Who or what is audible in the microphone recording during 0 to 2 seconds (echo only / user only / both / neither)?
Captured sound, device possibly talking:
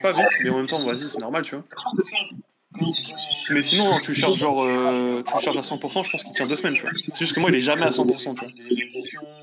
both